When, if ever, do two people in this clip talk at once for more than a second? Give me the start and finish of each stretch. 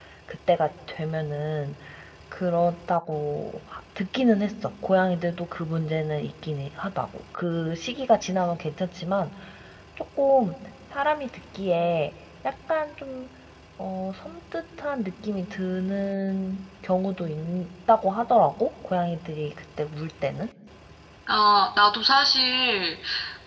none

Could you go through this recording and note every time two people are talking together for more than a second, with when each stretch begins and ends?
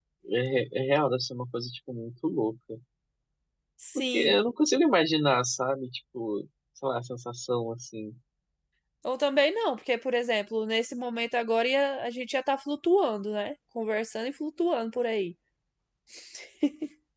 none

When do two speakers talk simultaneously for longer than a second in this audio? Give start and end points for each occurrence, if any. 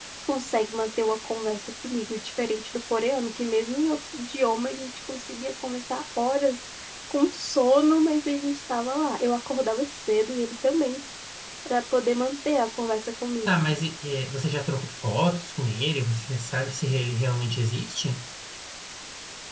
none

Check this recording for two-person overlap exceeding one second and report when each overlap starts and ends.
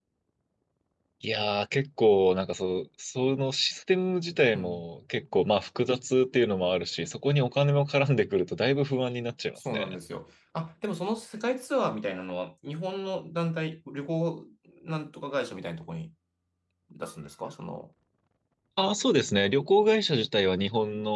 none

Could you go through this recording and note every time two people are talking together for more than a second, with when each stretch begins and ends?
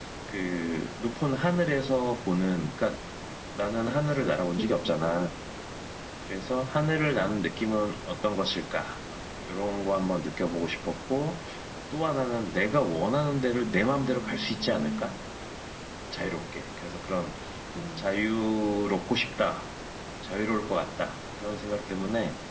3.8-5.3, 13.6-15.1

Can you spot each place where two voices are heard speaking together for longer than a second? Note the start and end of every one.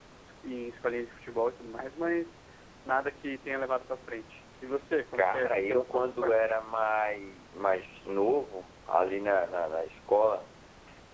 5.1-6.5

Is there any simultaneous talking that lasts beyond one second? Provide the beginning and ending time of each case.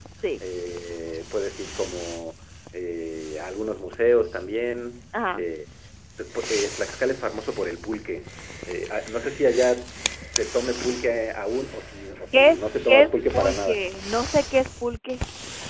12.3-13.8

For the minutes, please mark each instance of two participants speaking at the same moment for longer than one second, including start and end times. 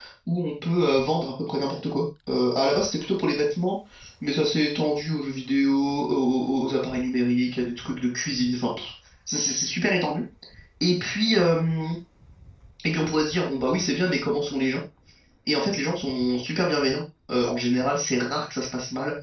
none

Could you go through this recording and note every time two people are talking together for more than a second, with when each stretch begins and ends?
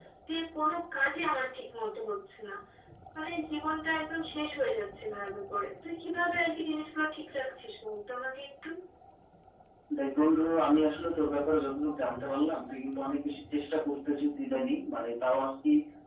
none

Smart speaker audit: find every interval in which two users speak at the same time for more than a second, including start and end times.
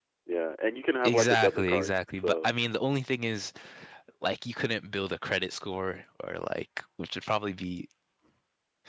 1.0-2.5

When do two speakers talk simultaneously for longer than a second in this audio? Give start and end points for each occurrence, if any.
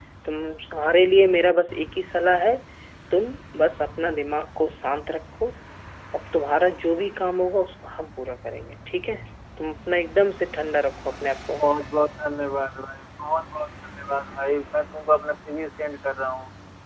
none

